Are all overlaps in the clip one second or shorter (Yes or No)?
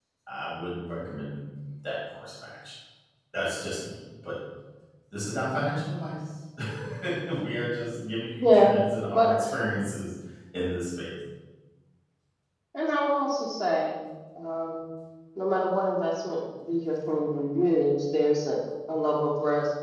Yes